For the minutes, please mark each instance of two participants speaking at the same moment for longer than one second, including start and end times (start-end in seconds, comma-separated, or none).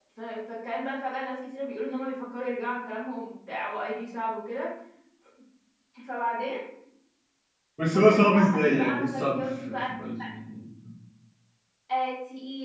7.9-9.8